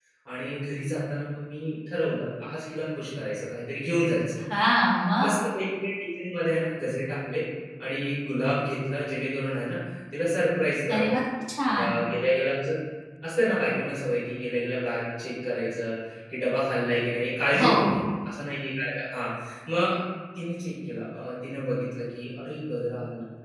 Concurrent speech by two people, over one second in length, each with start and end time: none

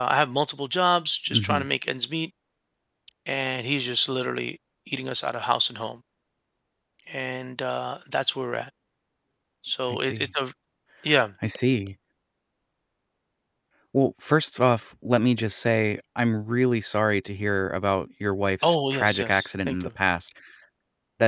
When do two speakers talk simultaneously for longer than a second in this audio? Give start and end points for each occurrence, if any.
18.6-19.9

